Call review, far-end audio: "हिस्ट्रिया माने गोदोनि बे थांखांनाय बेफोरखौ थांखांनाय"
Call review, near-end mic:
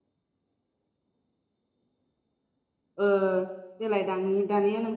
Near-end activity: present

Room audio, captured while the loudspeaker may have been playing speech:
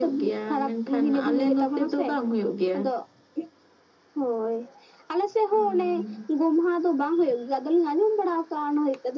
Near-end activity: none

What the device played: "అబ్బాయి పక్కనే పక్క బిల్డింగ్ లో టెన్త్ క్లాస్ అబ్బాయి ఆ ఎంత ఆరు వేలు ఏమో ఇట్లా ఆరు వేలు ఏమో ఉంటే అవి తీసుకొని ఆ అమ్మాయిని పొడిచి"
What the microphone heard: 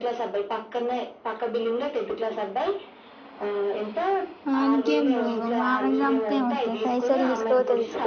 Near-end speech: present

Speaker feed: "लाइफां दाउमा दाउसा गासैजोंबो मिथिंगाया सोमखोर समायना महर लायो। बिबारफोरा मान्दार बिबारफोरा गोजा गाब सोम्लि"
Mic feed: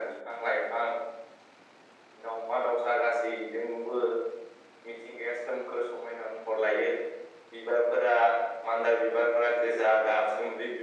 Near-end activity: none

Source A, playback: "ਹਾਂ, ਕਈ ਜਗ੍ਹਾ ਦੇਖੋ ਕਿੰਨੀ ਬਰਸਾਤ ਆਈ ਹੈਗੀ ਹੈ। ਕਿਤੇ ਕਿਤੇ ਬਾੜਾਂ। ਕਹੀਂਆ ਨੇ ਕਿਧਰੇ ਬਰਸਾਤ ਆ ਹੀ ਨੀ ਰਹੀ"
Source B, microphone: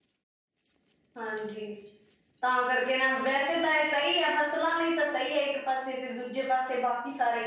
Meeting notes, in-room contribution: present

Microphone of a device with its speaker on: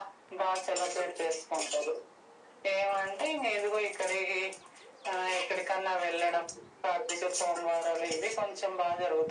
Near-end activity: none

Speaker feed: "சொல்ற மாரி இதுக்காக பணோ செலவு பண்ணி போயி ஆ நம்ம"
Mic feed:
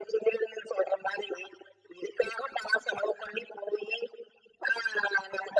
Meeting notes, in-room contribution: none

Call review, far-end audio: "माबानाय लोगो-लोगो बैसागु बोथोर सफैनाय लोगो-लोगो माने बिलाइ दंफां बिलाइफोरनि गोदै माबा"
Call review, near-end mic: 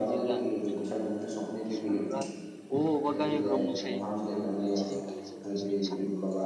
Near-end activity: present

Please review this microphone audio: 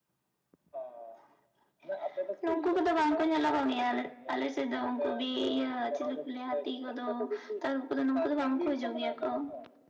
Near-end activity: none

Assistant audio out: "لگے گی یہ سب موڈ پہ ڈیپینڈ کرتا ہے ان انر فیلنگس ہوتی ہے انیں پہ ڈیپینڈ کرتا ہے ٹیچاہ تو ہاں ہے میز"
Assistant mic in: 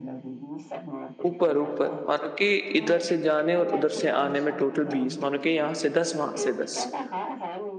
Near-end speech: present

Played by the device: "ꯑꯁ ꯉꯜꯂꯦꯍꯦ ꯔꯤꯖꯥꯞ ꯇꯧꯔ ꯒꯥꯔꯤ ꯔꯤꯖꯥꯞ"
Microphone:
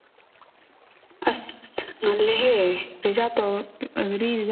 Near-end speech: none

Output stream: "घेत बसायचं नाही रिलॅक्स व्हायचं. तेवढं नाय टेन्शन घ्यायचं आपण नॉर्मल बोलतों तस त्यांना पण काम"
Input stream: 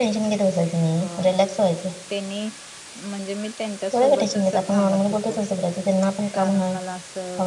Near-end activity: present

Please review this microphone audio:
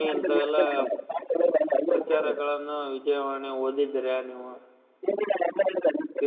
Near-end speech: present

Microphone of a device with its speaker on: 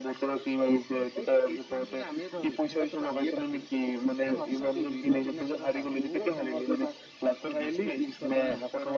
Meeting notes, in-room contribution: none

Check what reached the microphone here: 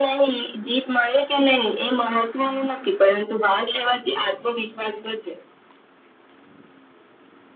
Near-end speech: none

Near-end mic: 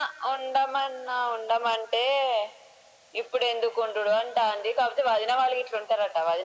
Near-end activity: none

